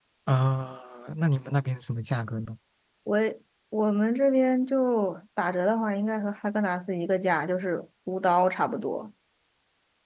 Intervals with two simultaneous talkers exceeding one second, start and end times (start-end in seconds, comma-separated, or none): none